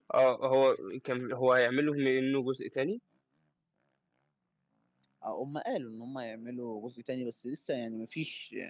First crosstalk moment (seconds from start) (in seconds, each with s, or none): none